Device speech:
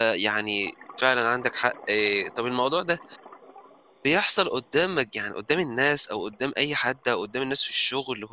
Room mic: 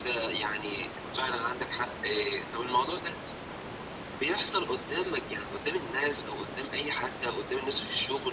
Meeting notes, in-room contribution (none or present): none